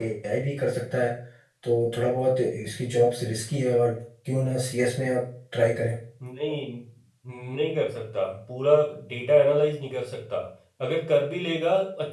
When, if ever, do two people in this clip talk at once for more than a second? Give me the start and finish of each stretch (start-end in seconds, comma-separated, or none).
none